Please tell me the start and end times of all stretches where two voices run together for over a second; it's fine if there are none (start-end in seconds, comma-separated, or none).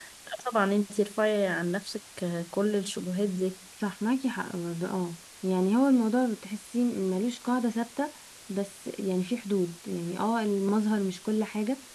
none